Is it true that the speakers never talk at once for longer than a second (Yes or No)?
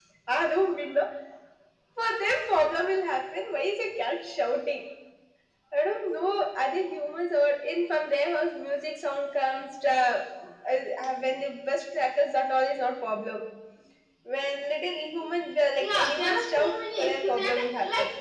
No